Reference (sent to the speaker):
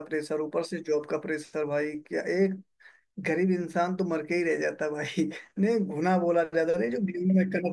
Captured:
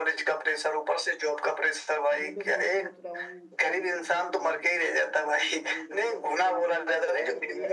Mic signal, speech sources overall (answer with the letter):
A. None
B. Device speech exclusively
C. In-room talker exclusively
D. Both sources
D